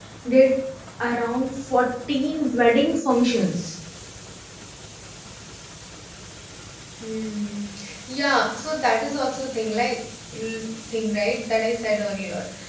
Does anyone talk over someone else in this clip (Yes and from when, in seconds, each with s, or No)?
No